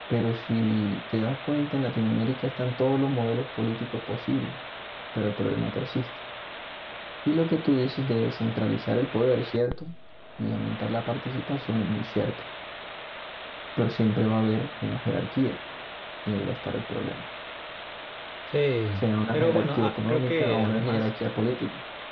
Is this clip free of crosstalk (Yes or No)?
No